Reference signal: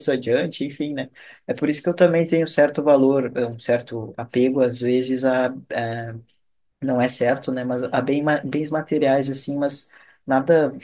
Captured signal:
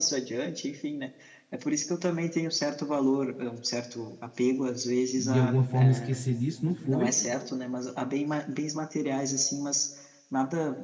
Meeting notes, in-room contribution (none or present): present